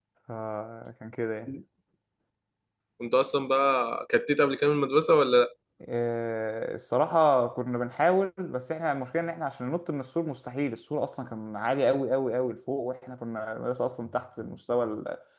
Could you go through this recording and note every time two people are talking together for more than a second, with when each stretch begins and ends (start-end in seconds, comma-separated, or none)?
none